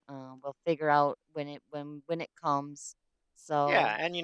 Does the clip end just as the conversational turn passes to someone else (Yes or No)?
Yes